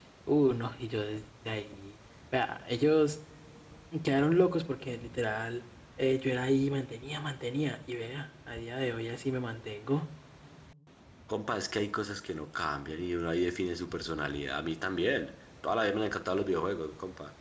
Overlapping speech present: No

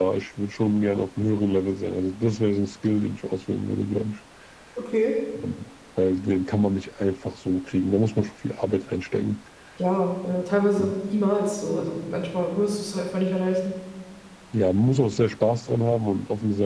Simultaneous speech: No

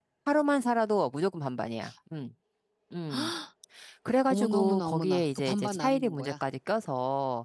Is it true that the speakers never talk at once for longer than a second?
No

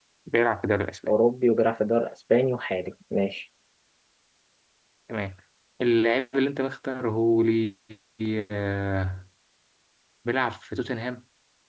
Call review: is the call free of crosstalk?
Yes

